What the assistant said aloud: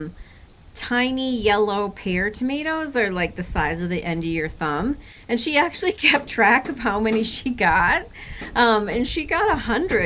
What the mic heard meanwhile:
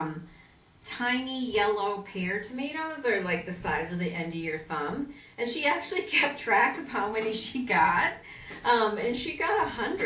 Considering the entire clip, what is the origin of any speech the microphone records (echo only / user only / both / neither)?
echo only